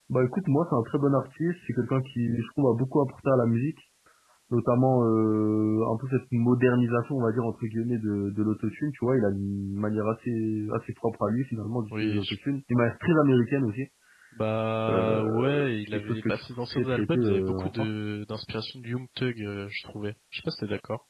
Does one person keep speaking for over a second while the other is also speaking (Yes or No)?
Yes